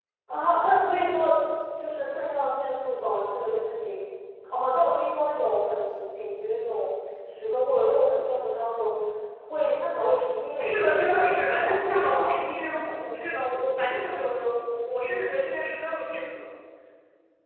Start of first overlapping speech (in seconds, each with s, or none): 10.6 s